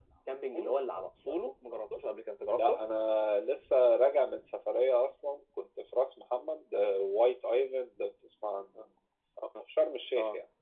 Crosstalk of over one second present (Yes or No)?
No